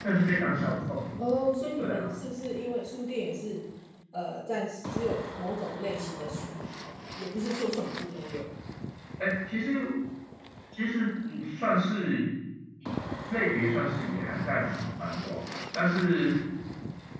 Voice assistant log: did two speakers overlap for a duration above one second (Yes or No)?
No